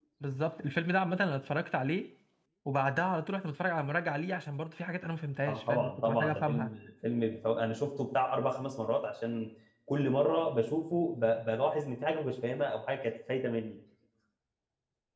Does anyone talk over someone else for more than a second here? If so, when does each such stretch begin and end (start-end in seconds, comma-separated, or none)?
5.5-6.7